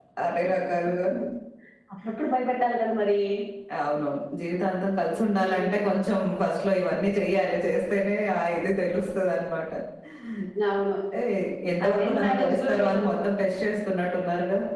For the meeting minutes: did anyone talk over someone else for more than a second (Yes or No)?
Yes